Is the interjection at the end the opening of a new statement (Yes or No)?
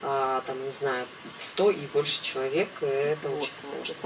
Yes